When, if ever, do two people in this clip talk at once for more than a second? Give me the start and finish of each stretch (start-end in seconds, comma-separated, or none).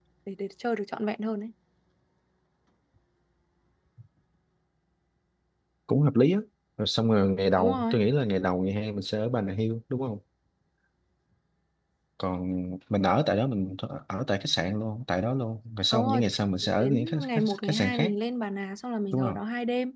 16.6-18.1